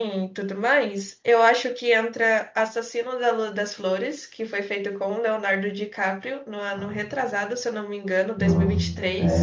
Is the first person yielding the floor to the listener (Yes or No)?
Yes